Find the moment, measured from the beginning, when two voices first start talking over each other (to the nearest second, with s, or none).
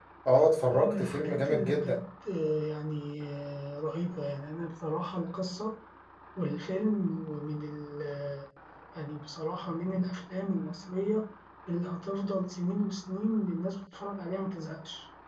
1 s